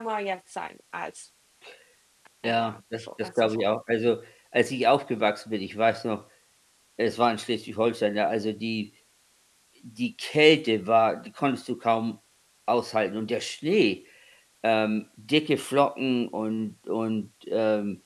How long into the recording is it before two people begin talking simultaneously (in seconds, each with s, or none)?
2.4 s